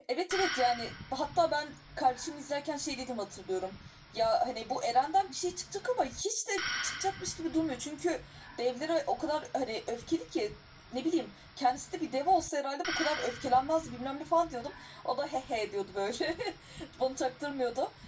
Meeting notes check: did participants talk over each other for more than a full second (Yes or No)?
No